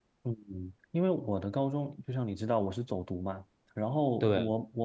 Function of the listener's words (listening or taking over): listening